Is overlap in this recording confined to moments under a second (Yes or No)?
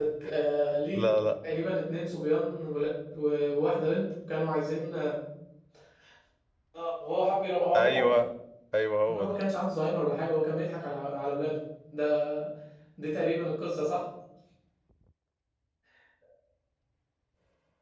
Yes